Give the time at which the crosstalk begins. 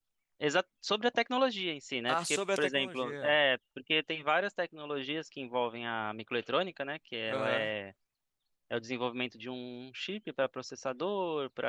2.1 s

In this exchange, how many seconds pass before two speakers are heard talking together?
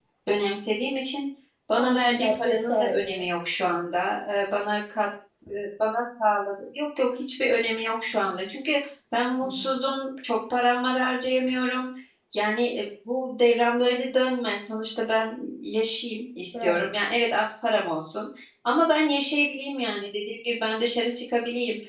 1.7 s

